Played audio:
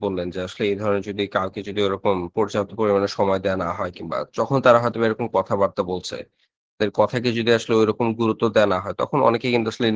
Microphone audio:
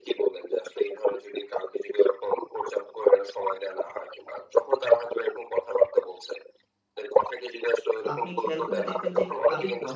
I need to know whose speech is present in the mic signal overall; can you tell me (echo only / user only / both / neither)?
both